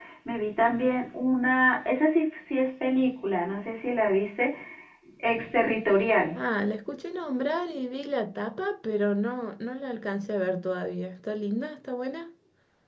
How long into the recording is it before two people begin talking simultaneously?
none

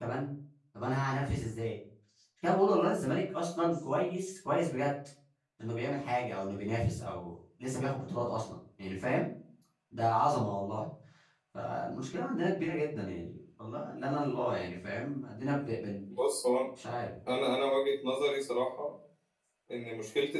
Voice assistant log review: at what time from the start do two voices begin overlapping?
none

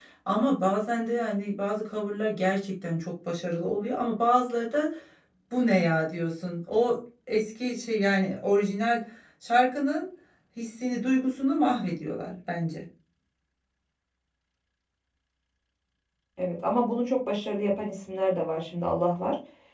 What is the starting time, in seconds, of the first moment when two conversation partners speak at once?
none

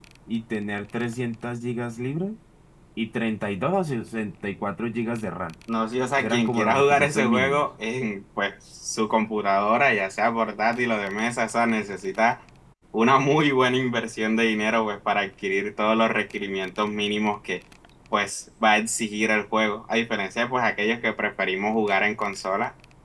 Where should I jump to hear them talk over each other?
6.2 s

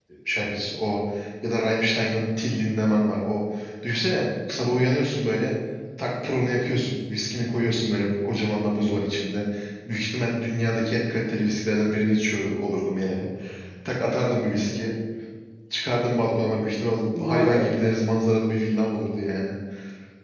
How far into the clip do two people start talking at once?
16.4 s

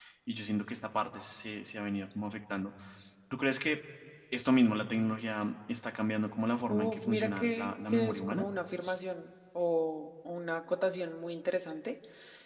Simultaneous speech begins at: 6.6 s

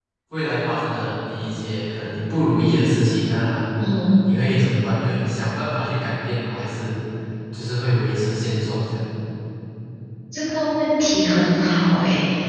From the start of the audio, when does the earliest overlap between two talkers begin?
none

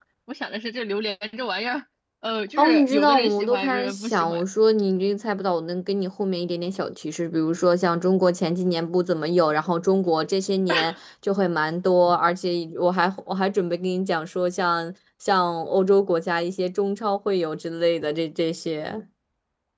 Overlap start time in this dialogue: 2.6 s

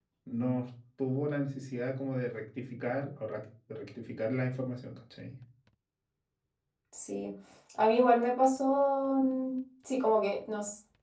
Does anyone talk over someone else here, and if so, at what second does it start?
none

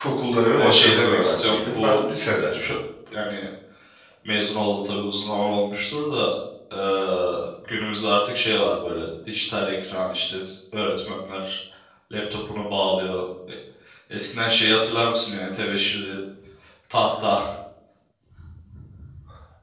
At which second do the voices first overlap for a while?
0.5 s

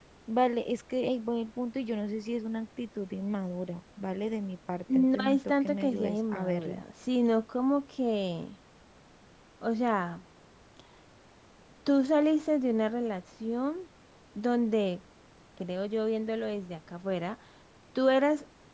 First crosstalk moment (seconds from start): 4.9 s

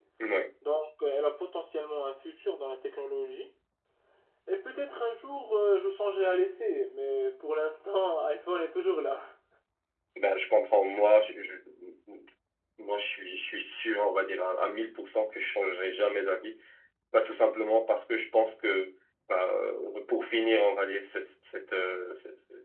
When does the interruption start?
none

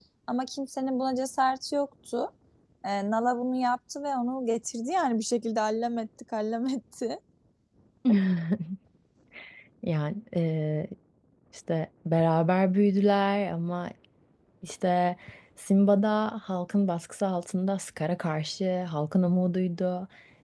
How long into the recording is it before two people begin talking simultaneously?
none

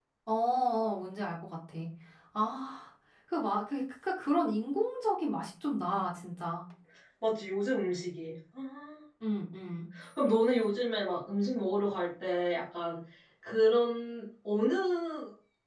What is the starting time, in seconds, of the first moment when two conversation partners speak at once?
none

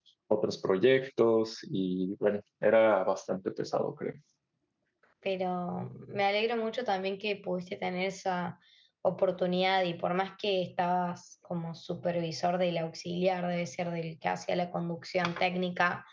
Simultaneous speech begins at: none

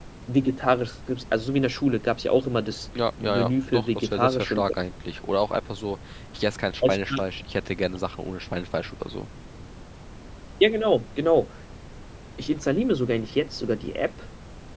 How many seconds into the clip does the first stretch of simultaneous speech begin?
3.2 s

